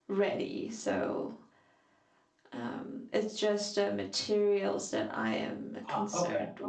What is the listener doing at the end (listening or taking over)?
taking over